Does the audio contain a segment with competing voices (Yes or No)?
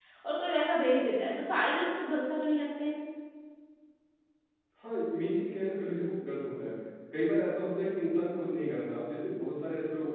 No